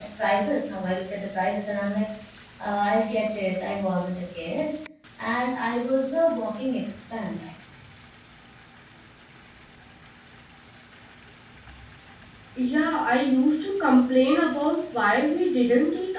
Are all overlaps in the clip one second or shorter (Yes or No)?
Yes